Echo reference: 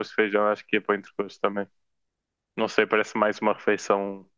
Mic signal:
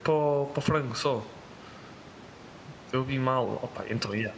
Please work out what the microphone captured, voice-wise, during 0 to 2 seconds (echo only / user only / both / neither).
user only